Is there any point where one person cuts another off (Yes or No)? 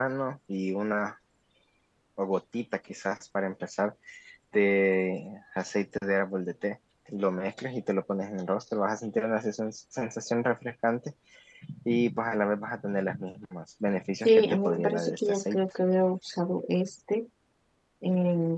Yes